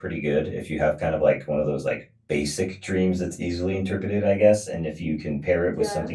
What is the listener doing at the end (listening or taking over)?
listening